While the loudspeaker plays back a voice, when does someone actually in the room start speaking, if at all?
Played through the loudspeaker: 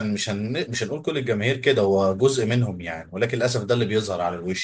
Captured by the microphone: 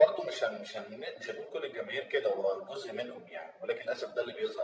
none

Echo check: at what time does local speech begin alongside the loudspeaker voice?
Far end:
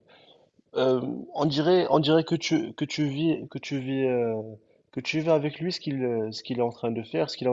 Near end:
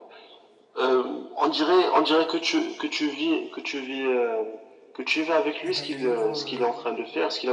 5.6 s

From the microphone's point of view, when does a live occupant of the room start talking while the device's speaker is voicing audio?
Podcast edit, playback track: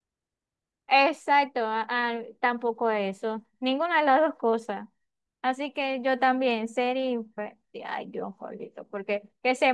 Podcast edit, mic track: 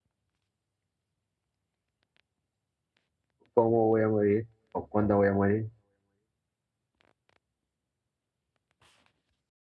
3.5 s

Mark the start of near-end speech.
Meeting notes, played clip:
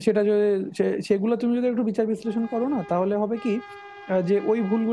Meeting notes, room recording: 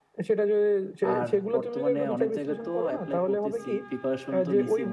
1.1 s

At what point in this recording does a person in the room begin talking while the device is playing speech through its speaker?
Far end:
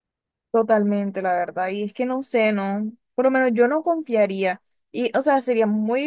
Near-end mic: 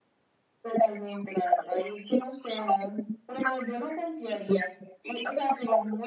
none

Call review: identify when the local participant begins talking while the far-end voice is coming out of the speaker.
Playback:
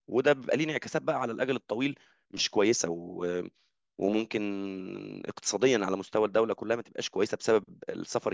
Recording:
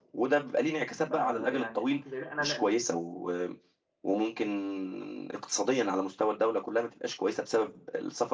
1.1 s

